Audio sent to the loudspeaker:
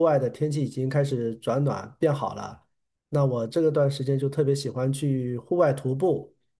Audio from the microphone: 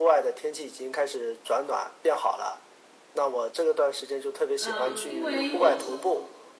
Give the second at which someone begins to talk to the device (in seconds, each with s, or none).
4.6 s